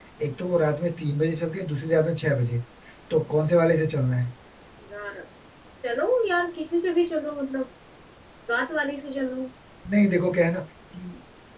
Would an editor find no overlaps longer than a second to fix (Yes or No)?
Yes